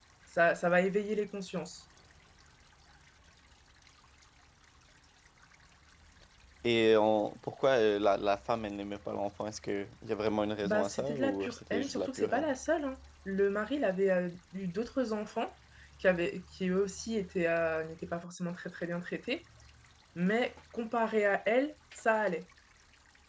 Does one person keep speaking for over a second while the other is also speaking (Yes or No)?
Yes